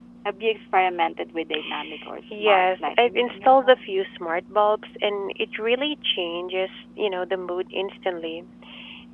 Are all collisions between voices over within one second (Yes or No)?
No